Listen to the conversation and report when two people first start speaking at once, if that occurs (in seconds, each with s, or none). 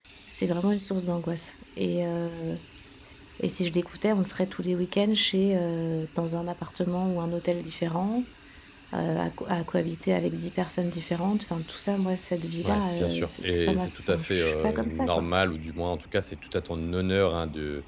12.6 s